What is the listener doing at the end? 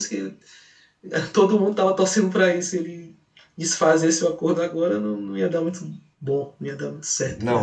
taking over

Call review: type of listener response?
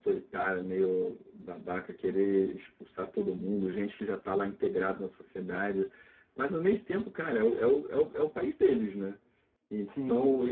listening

